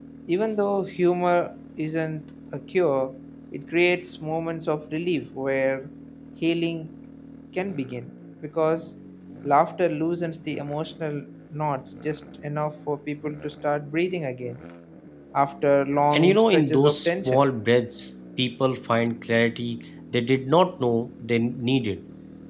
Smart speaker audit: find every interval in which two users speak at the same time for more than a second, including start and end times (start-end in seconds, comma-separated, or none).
16.1-17.4